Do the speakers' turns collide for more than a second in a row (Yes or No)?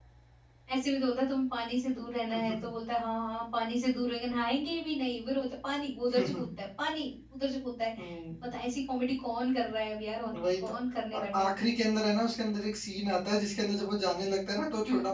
No